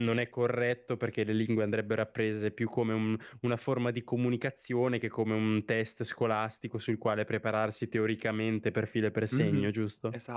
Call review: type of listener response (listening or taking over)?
taking over